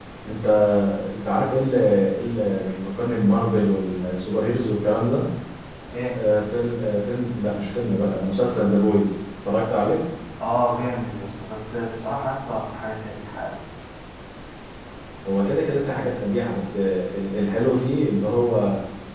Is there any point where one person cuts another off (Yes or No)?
No